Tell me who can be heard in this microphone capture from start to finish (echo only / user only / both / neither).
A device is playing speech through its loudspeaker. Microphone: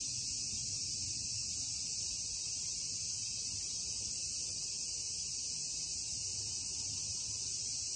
neither